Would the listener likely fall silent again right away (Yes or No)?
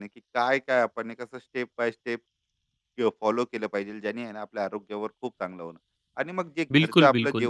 Yes